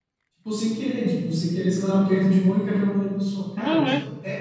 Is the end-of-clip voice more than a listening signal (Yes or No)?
No